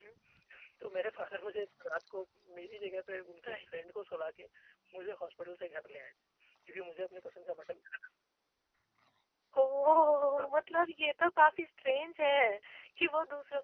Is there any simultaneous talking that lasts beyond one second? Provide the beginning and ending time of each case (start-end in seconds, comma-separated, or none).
none